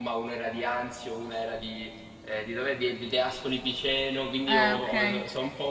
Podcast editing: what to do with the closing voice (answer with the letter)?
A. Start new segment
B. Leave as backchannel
B